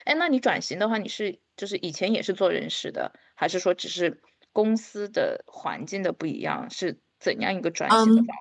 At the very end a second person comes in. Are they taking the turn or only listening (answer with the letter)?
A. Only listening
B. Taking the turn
B